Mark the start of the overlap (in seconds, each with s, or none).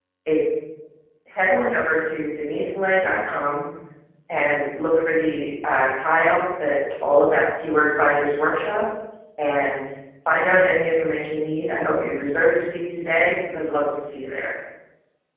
none